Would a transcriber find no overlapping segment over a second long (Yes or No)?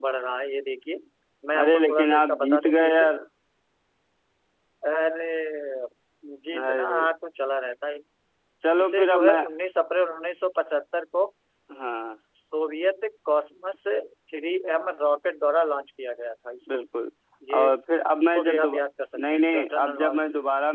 No